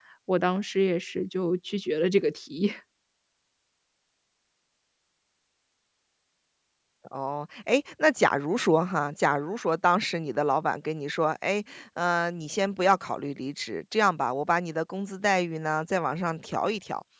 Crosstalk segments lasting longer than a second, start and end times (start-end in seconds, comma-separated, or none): none